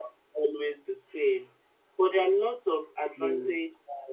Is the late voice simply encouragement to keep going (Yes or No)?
Yes